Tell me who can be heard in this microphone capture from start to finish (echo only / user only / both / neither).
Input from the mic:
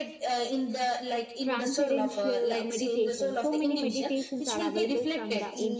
both